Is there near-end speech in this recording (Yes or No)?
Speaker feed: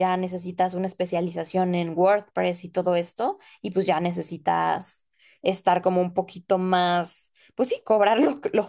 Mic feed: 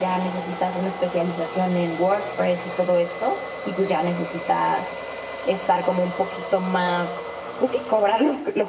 No